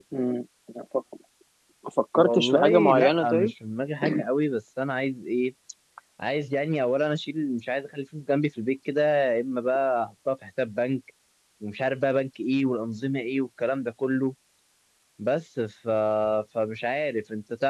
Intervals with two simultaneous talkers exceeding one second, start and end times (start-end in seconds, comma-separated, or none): 2.2-3.5